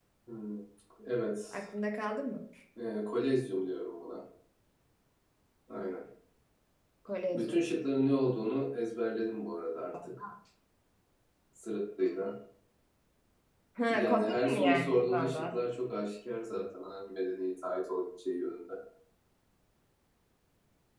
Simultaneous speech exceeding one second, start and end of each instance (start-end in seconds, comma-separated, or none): 13.9-15.6